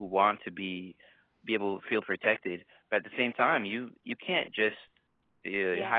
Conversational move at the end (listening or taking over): listening